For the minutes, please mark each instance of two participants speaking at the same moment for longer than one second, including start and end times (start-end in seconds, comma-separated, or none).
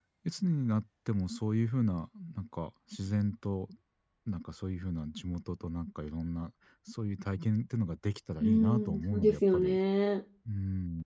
8.4-9.8